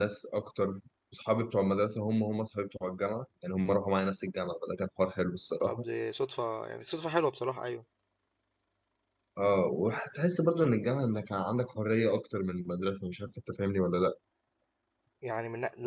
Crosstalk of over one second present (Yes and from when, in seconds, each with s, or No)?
No